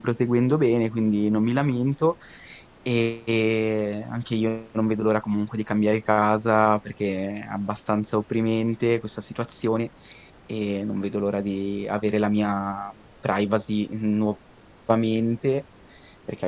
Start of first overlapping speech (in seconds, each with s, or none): none